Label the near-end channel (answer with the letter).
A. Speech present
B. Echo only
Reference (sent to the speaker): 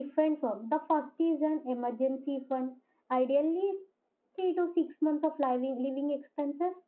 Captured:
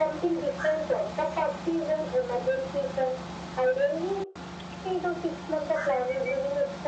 B